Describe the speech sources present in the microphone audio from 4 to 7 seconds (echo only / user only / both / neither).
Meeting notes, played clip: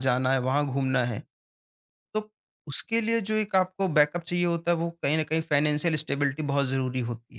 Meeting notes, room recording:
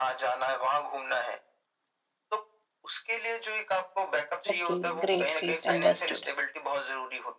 both